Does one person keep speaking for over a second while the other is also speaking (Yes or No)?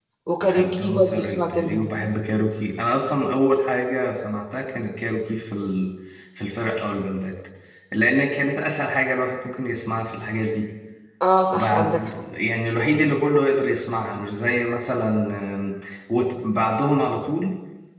Yes